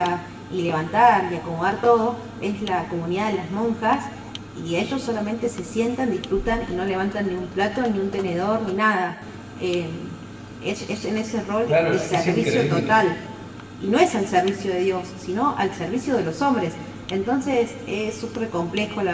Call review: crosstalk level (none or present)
present